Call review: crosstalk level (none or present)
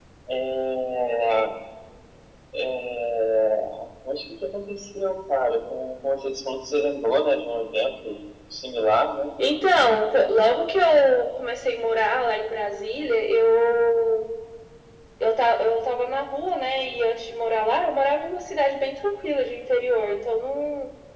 none